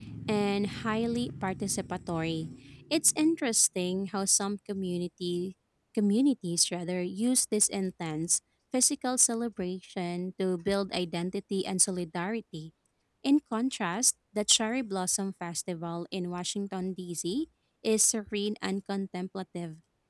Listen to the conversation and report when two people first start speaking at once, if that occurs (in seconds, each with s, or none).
none